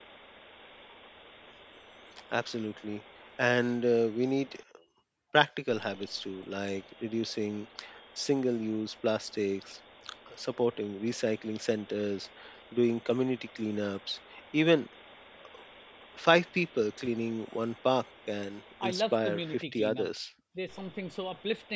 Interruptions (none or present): present